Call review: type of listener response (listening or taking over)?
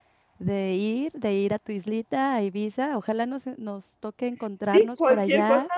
taking over